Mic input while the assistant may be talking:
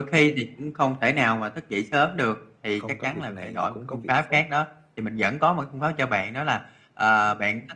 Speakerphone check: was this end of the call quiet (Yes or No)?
No